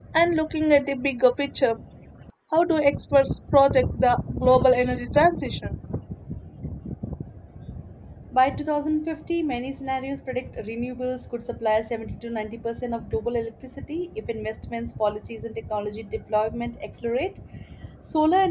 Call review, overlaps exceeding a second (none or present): none